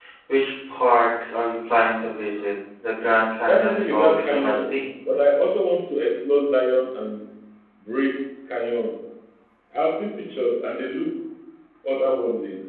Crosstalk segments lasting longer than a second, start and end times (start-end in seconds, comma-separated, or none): 3.5-4.7